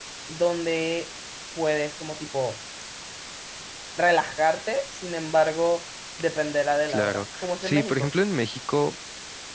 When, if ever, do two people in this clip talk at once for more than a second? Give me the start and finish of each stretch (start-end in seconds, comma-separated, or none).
6.9-8.1